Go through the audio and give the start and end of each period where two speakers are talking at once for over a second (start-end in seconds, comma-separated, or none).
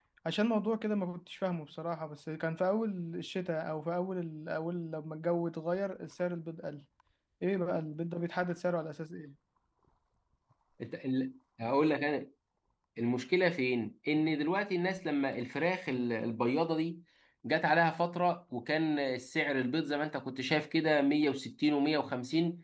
none